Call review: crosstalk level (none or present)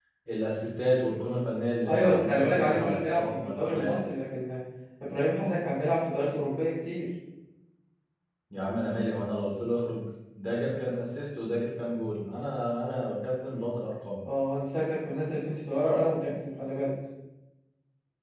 present